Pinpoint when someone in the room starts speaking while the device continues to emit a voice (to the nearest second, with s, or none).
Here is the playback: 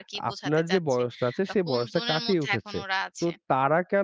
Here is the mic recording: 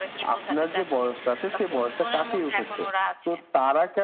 none